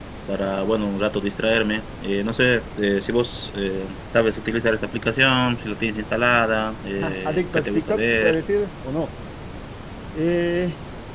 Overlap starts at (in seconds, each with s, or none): 7.0 s